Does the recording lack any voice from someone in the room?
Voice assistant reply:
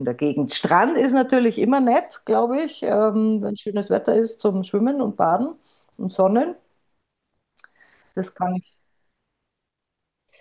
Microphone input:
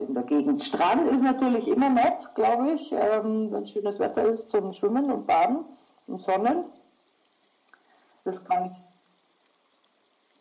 Yes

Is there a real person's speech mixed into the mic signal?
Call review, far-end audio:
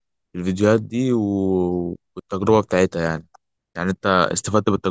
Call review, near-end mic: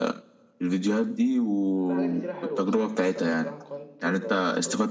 Yes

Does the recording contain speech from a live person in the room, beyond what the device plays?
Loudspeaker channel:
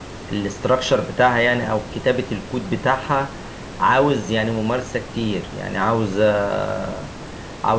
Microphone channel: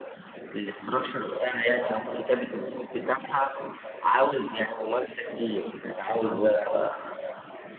No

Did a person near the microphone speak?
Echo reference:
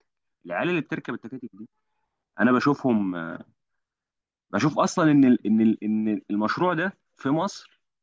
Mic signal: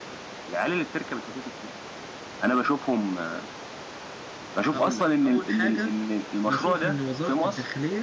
Yes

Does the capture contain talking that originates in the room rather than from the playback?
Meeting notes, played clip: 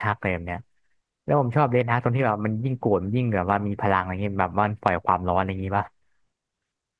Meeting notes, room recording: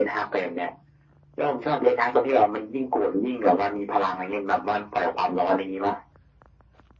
No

